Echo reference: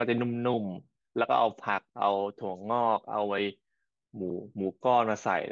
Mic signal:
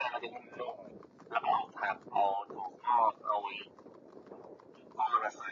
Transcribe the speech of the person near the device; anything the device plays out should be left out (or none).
none